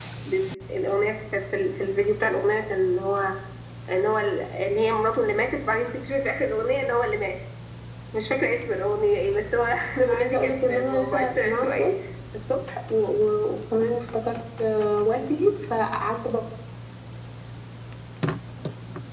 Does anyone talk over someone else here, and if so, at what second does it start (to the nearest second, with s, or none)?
10 s